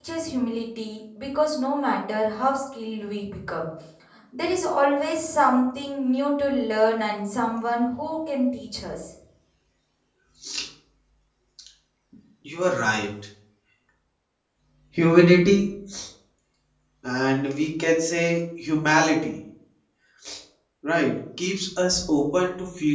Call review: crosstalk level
none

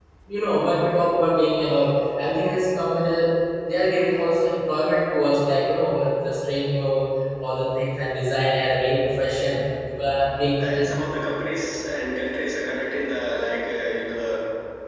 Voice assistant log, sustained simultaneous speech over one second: none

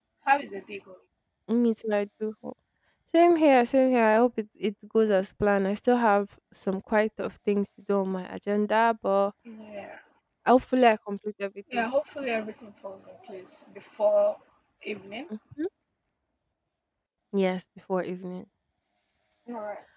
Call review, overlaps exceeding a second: none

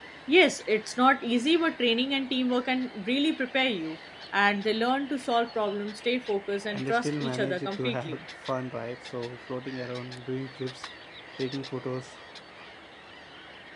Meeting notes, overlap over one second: present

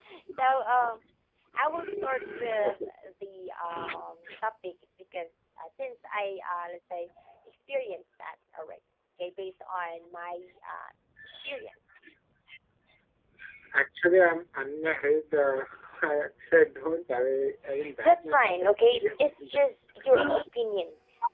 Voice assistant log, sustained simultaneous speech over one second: present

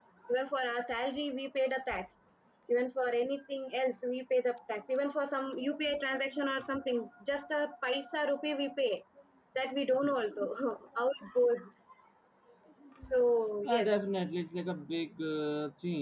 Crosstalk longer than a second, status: none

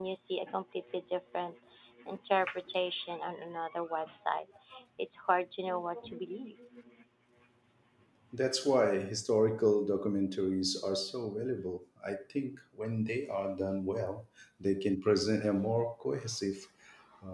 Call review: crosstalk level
none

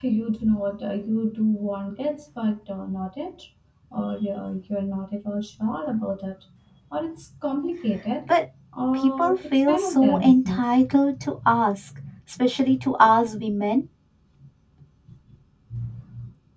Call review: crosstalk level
present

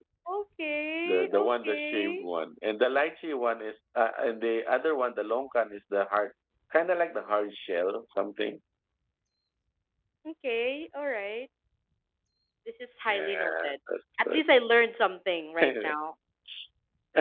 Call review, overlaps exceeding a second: present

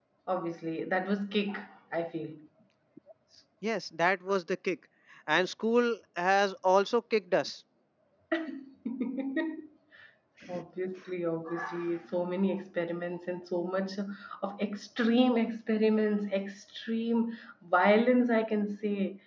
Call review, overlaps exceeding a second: none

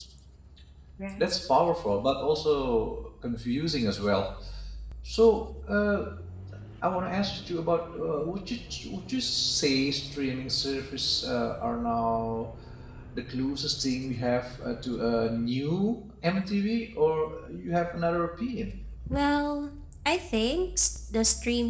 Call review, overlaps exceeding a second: none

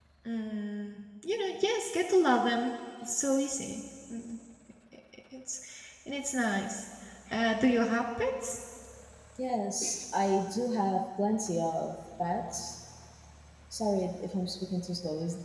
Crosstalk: none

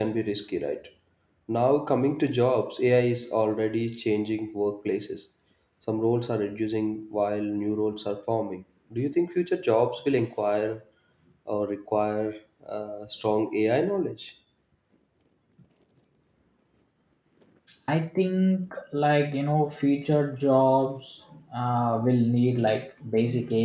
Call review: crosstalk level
none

